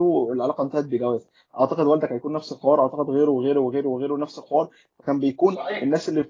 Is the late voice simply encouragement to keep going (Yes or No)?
Yes